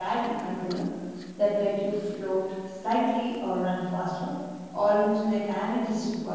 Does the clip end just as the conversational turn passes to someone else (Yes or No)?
Yes